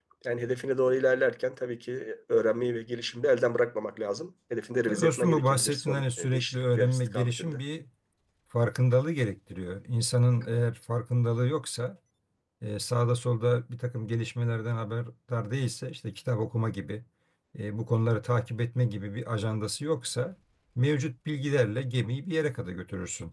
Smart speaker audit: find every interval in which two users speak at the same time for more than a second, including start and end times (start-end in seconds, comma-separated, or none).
4.9-7.6